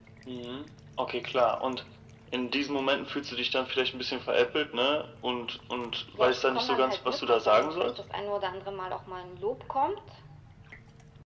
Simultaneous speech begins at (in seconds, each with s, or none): 6.2 s